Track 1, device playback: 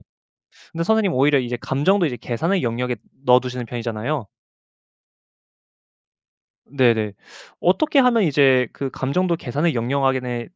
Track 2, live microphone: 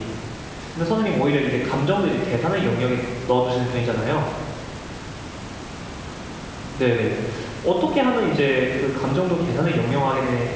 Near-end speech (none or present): none